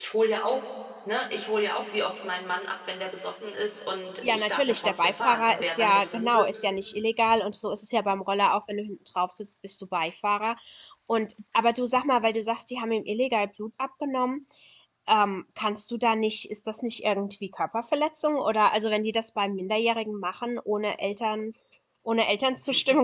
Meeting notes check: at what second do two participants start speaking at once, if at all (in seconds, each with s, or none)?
4.2 s